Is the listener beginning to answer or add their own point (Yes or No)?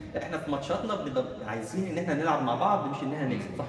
Yes